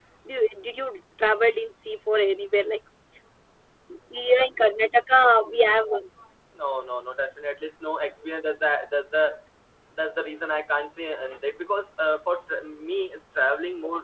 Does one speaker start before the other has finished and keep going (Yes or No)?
No